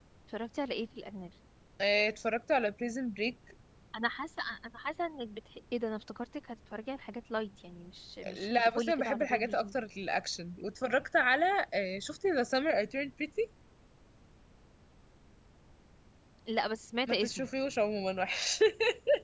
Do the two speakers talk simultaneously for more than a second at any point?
Yes, from 8.3 s

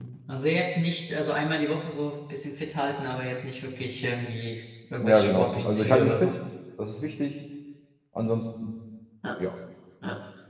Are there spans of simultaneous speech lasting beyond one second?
Yes, from 5.0 s

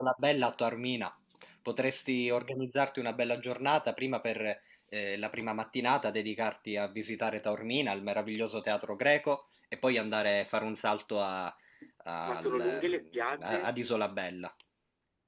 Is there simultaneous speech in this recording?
Yes, from 12.3 s

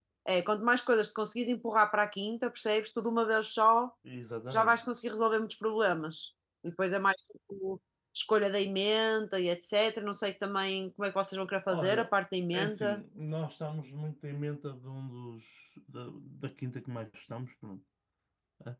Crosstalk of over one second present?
No

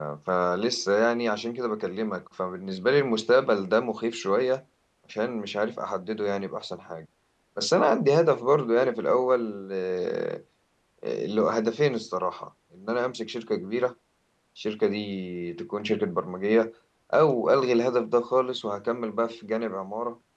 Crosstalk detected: No

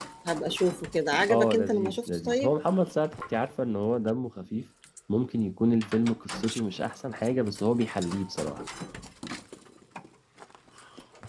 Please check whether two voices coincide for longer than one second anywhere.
Yes, from 1.3 s

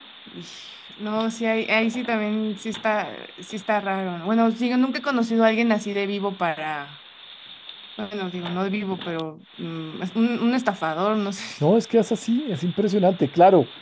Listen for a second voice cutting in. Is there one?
No

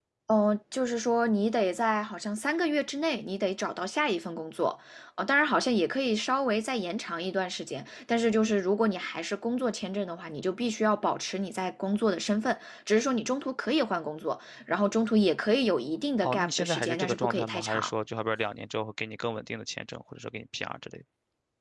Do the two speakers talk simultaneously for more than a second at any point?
Yes, from 16.2 s

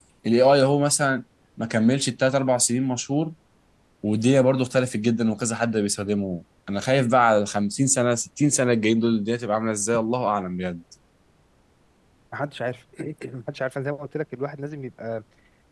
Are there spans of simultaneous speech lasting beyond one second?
No

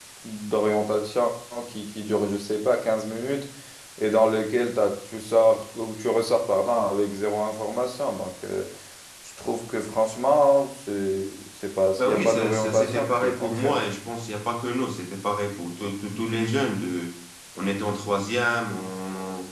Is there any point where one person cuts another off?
Yes, from 12.0 s

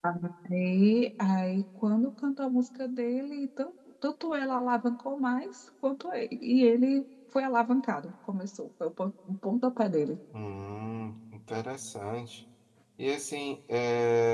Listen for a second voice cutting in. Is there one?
No

